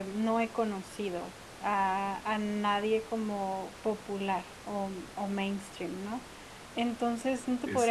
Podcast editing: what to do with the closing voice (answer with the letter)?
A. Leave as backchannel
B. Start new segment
A